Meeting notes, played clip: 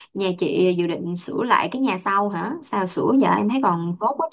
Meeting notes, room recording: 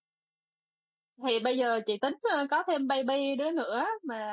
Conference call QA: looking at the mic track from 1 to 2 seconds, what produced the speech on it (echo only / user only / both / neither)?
user only